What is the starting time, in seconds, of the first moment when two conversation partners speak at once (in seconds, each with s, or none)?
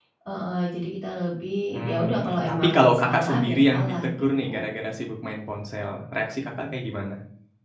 1.7 s